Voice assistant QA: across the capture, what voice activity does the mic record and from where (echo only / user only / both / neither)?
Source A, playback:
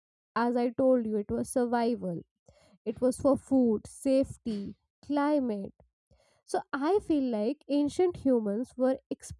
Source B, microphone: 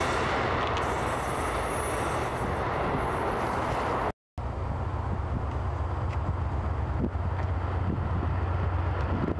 neither